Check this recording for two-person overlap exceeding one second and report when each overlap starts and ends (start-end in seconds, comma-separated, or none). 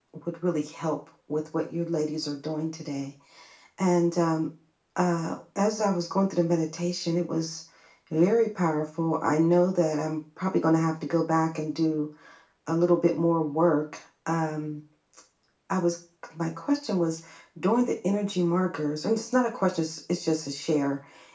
none